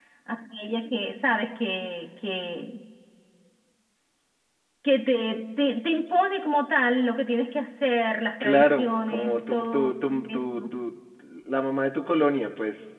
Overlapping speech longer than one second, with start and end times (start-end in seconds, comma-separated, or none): 8.4-10.6